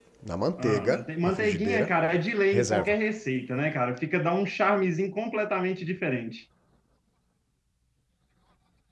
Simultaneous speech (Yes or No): Yes